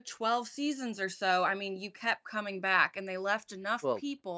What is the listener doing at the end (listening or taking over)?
listening